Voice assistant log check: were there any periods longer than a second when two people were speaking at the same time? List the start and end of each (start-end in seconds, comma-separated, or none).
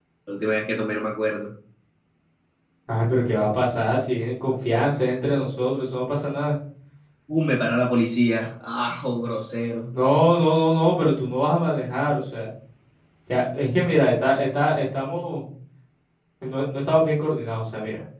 none